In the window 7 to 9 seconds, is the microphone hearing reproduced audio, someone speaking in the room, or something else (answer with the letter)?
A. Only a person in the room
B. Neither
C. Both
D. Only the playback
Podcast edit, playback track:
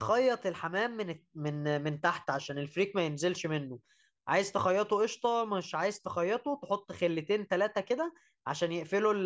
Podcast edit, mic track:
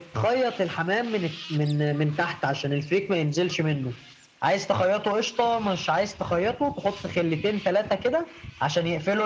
D